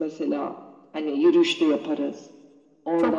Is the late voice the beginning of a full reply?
Yes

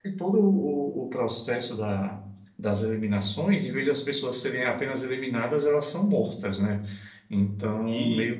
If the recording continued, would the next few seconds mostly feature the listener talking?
No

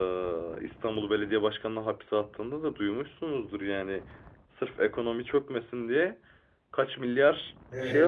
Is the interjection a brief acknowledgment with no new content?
No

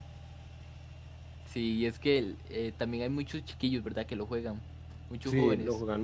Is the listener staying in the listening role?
No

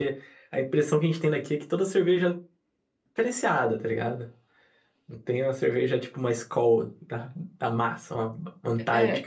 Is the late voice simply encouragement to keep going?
No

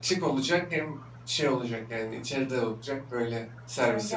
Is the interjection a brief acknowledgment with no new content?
No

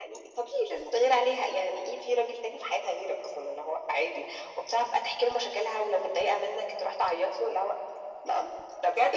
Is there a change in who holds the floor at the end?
Yes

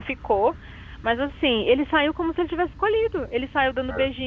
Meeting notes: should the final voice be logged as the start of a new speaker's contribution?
No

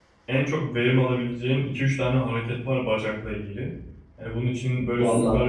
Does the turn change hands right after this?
No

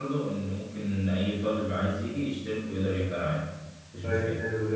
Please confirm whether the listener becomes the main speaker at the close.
Yes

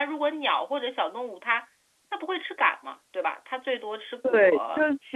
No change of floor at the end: No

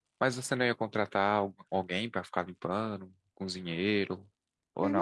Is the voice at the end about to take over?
Yes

